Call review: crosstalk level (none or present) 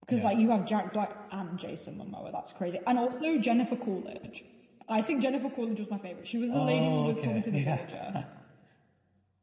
present